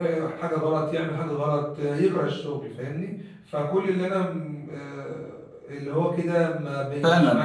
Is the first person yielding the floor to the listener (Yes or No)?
Yes